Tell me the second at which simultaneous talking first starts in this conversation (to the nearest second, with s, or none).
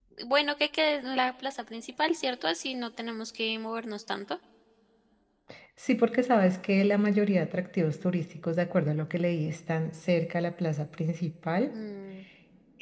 none